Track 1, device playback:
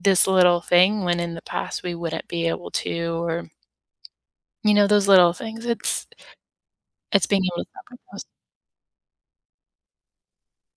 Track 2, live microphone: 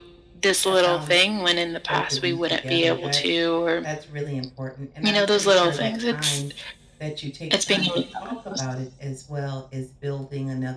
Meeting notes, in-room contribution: present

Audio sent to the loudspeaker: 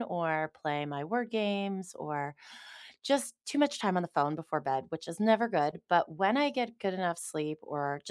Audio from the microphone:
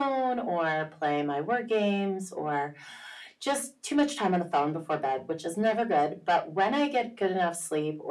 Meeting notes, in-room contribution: none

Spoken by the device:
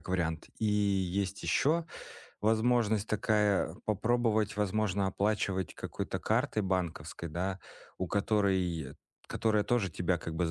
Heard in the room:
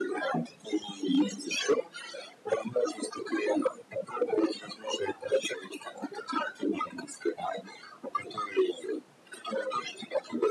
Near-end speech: none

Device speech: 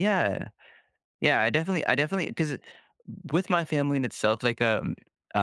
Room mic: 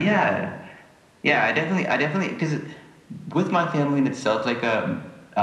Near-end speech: none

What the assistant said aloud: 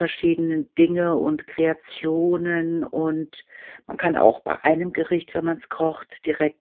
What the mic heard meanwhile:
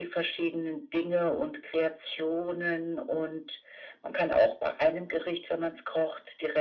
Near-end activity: none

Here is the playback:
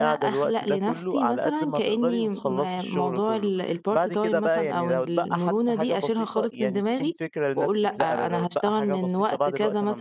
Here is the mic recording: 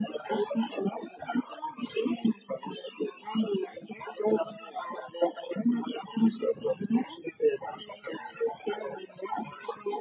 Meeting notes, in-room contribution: none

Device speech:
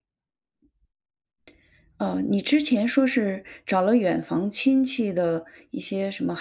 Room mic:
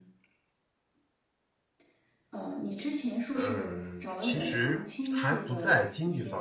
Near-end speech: present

